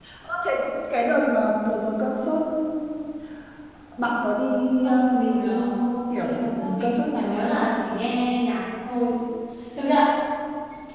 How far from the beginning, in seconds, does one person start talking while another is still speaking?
5 s

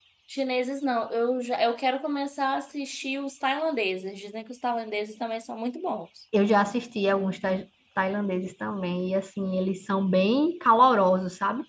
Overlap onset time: none

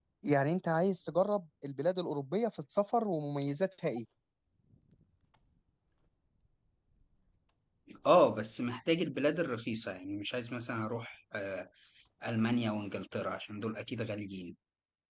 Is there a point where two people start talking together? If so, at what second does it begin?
none

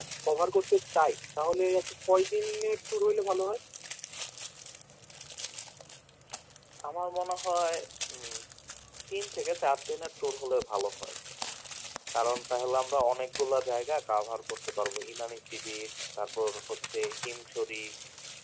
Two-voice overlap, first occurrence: none

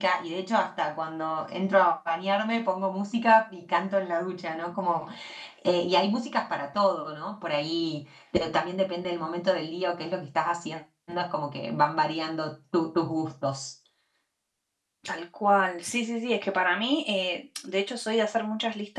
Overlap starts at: none

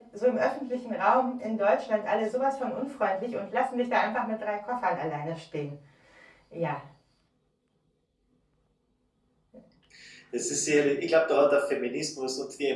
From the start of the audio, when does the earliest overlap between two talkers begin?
none

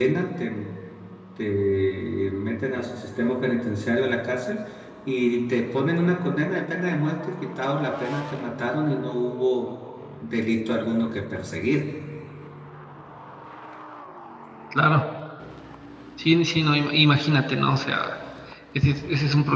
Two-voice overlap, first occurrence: none

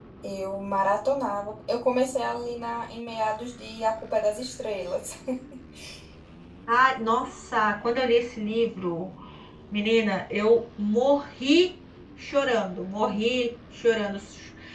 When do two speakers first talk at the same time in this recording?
none

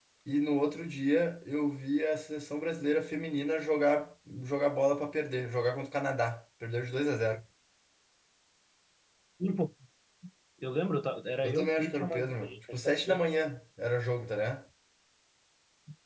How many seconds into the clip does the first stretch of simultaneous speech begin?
11 s

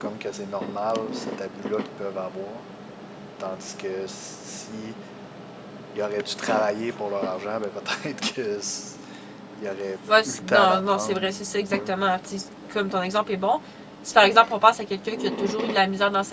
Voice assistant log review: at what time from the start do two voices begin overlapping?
10 s

